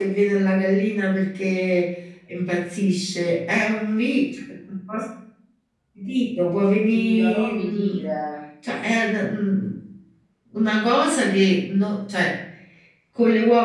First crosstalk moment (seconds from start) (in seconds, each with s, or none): 6.4 s